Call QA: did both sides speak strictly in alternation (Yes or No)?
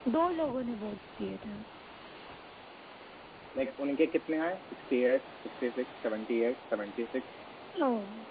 Yes